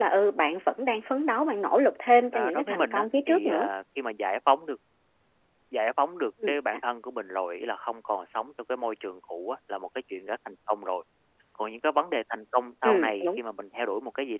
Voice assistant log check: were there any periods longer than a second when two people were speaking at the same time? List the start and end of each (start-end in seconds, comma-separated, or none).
2.3-3.7